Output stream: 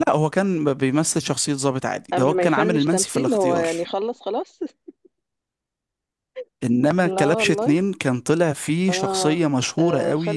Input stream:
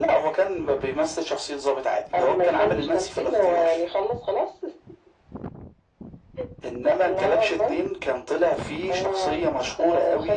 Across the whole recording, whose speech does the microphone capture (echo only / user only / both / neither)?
echo only